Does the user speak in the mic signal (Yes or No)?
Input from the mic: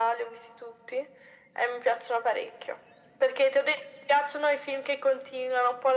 No